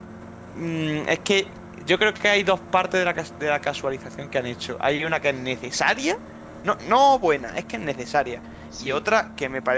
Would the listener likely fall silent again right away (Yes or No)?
Yes